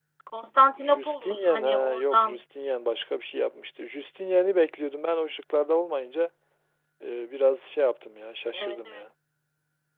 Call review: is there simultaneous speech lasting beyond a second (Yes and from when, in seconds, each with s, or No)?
Yes, from 0.8 s